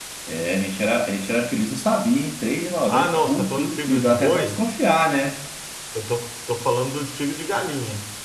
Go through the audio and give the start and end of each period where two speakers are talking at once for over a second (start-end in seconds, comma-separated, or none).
2.9-4.6